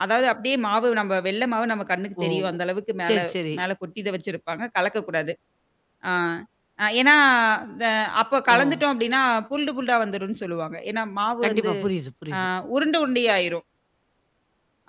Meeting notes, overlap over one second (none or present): none